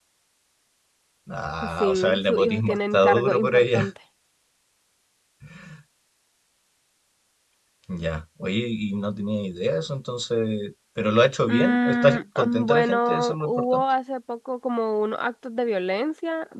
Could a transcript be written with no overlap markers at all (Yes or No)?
No